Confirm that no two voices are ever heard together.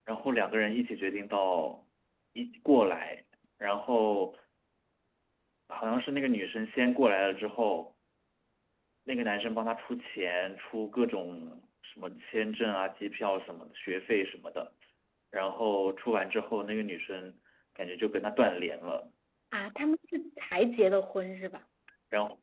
Yes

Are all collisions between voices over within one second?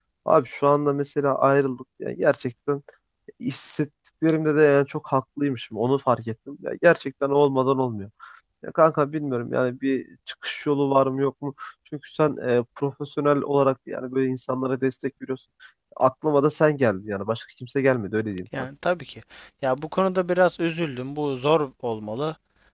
Yes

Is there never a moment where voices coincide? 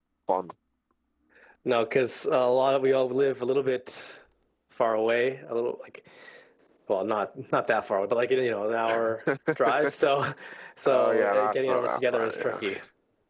No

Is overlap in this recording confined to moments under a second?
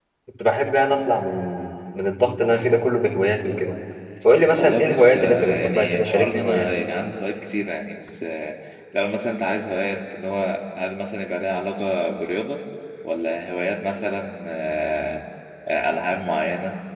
No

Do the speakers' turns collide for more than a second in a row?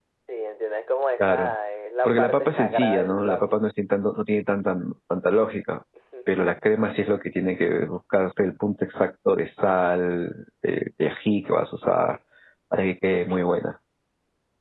Yes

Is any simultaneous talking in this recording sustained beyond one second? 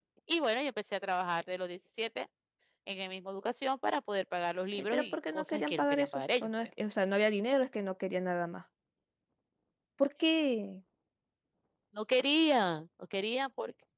Yes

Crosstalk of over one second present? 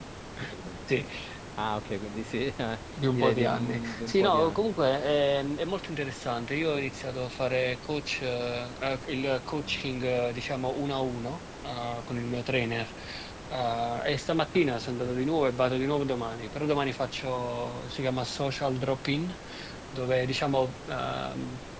Yes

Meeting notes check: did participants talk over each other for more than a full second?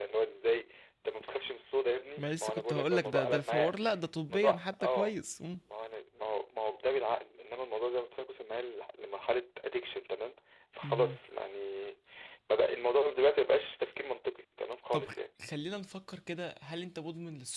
Yes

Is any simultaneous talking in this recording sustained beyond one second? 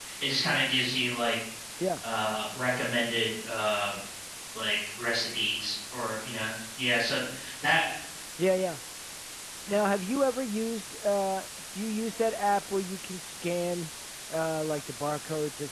No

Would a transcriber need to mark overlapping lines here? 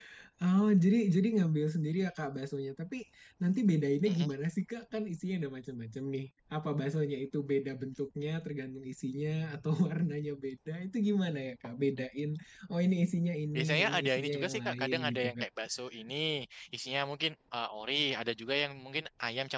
Yes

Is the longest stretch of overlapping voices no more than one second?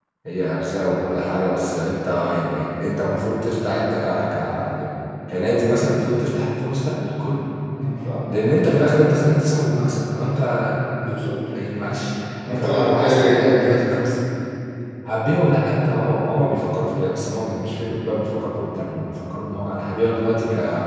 No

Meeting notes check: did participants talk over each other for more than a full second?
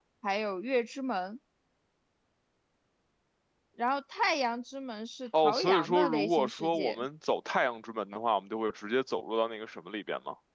Yes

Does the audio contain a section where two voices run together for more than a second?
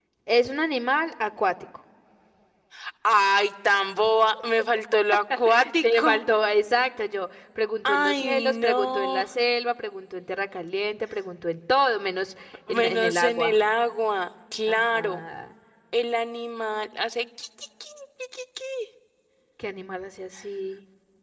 Yes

